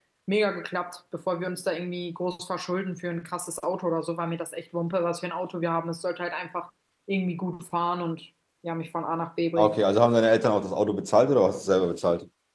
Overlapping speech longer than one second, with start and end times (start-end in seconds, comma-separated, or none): none